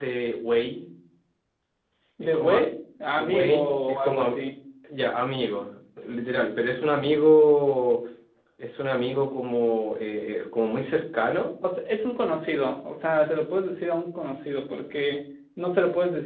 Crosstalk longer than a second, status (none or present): present